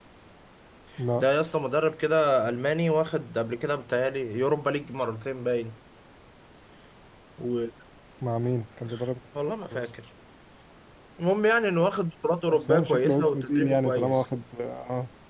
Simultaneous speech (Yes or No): Yes